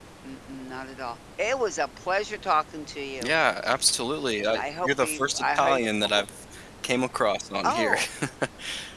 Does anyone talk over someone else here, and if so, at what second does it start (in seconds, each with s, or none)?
4.5 s